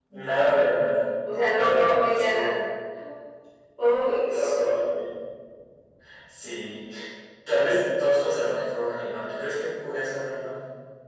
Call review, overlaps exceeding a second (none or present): present